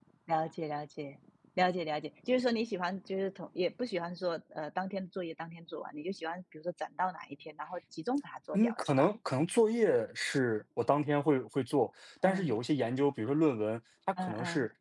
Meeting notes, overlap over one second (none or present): none